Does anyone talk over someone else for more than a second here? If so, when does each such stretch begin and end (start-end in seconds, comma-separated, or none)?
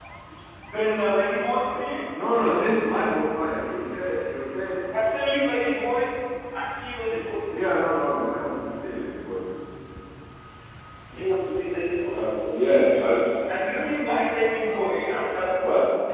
none